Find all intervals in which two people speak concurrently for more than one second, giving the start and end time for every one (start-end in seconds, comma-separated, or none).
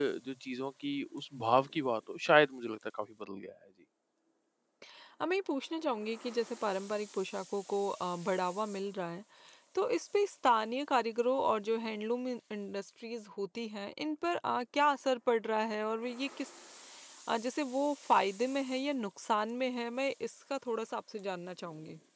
none